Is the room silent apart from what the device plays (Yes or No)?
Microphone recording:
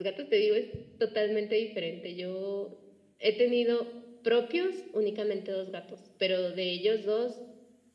No